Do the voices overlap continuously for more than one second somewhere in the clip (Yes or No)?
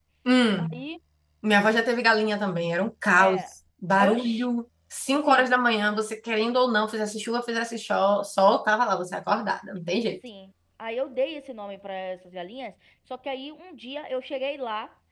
No